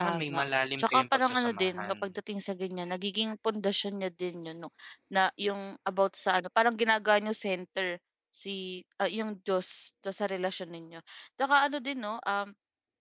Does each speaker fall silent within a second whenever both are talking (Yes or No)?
No